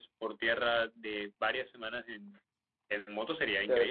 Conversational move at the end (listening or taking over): taking over